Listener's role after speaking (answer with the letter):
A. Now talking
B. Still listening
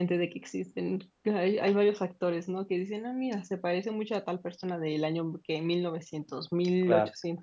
B